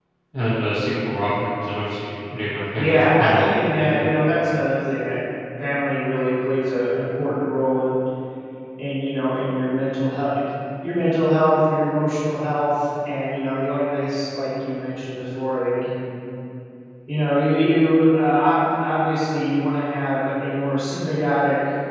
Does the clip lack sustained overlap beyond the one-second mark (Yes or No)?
No